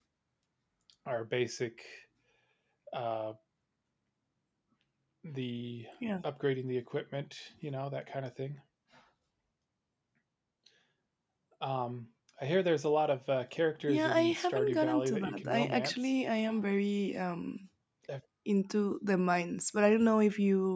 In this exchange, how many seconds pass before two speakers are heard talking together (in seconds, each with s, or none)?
13.9 s